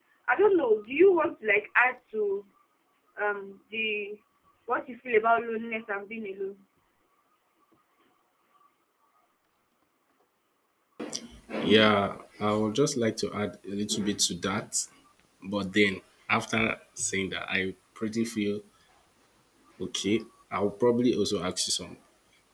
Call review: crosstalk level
none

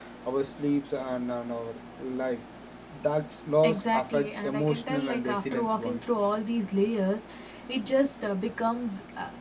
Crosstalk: present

